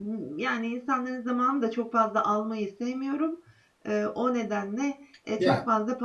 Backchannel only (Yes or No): Yes